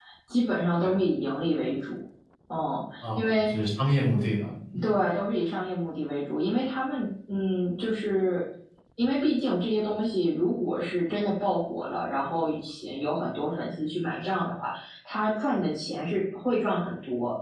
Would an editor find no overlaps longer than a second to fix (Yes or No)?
Yes